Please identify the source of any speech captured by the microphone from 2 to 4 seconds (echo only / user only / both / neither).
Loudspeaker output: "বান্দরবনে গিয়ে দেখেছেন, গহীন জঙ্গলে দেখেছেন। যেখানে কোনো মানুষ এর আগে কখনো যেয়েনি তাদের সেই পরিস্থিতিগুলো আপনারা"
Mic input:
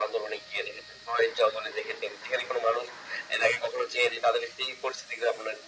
echo only